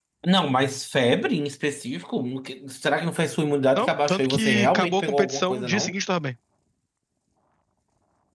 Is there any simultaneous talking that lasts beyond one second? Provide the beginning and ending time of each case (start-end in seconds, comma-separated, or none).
3.7-5.9